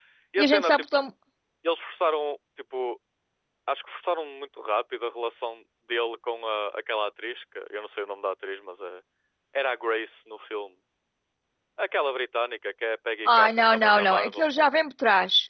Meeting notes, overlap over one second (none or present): present